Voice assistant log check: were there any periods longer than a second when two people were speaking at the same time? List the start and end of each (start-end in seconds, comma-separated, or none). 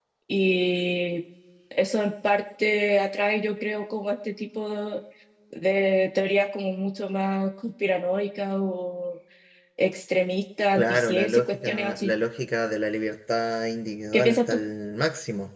10.8-12.1